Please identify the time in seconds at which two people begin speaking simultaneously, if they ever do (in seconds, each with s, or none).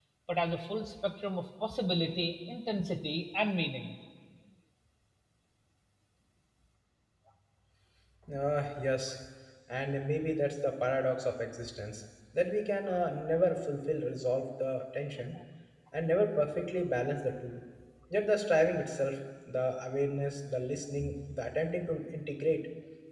none